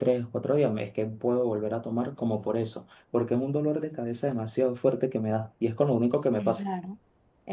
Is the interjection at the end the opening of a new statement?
Yes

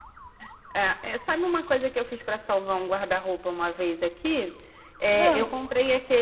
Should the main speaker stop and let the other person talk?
No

